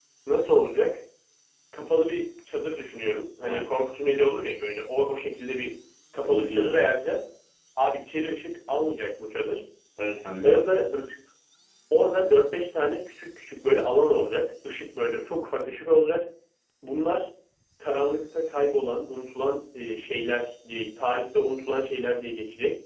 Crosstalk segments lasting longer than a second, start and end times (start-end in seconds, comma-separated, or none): none